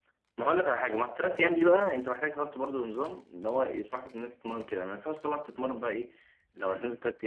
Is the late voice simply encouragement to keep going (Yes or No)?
Yes